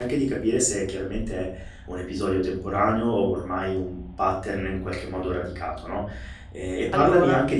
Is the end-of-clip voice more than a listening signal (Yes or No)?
No